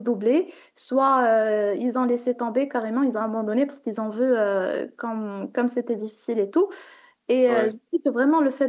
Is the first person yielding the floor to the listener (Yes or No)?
No